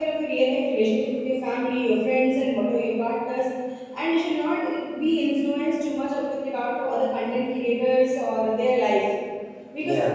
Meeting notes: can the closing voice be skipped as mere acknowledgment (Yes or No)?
Yes